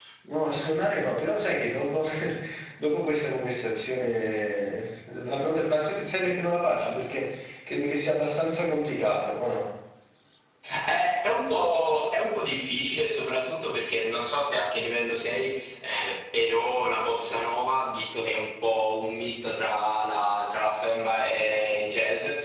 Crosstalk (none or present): none